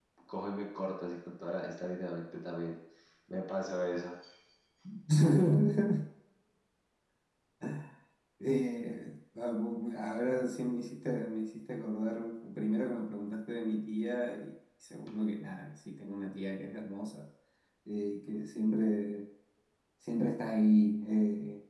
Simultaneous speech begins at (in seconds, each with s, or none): none